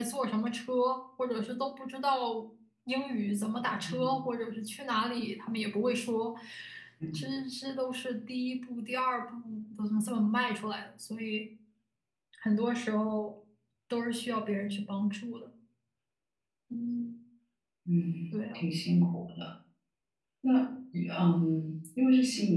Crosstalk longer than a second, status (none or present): none